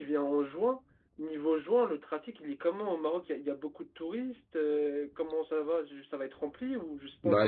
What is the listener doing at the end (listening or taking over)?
taking over